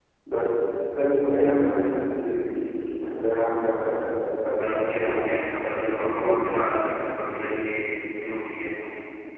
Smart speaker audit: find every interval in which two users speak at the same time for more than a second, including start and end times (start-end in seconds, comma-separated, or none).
4.6-6.3